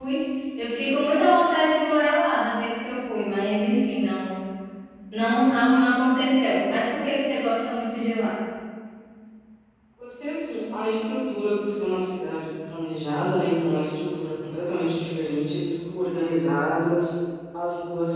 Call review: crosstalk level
none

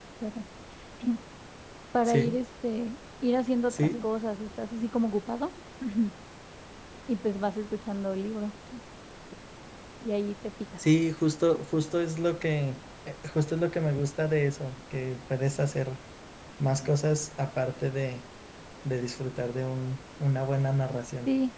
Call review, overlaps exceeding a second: none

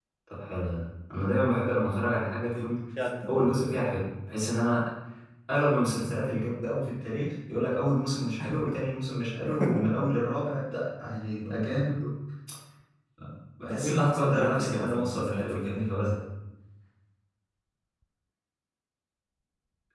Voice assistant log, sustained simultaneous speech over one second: present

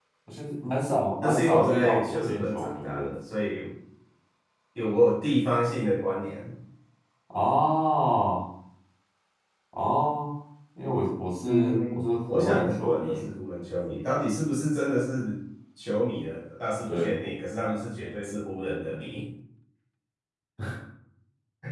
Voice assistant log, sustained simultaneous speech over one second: present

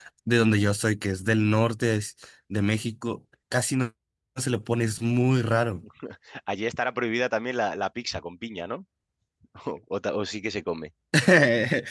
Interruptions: none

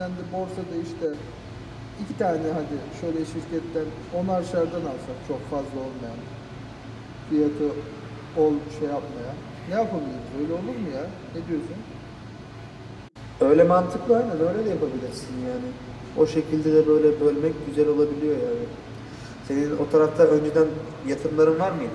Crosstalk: none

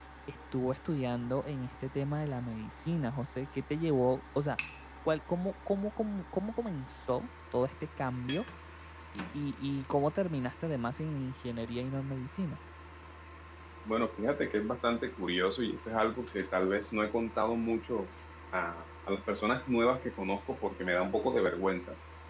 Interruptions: none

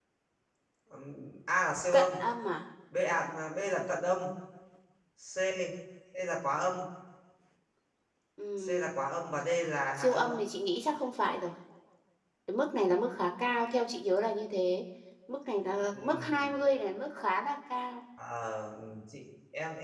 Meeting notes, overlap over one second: none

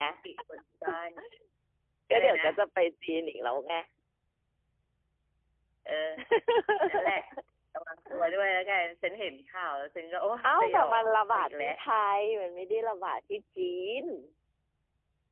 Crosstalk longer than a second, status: present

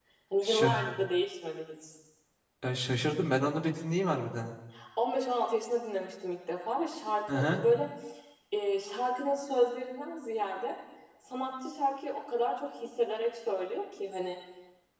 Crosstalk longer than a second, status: none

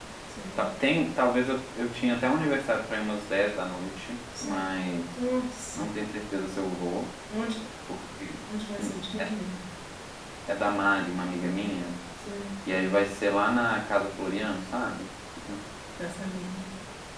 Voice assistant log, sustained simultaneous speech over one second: none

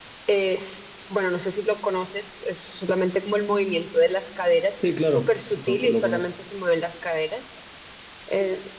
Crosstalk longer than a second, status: present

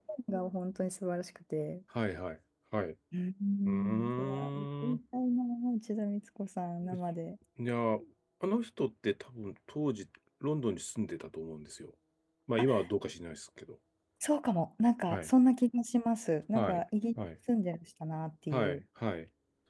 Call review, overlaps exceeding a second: present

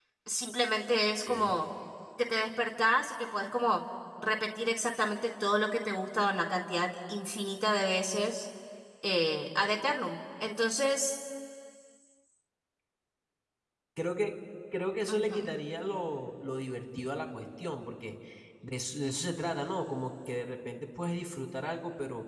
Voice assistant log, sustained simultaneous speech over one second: none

